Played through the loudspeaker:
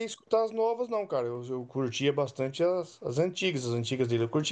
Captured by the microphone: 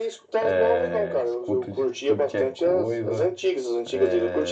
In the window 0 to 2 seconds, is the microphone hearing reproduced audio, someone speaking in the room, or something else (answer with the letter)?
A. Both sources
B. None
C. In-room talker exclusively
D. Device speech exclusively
A